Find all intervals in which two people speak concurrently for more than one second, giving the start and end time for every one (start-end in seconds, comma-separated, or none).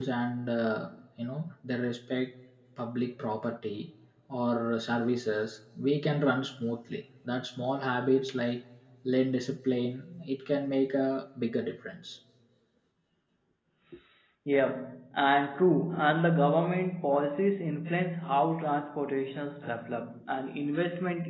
none